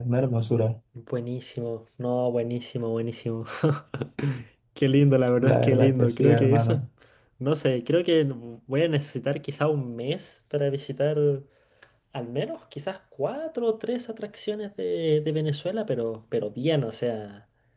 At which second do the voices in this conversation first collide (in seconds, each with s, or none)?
5.4 s